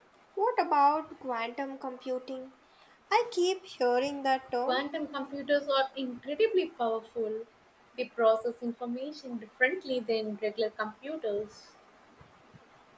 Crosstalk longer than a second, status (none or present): none